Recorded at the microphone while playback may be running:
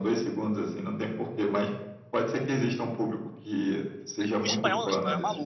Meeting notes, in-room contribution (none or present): present